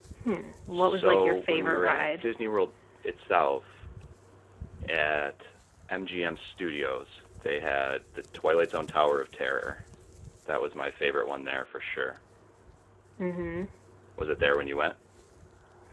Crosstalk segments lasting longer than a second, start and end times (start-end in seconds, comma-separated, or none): 0.7-2.2